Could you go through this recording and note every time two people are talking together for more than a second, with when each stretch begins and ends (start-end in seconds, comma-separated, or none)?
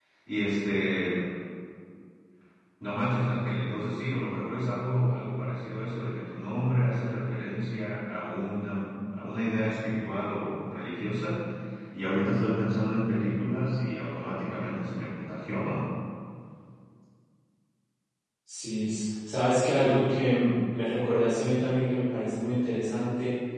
none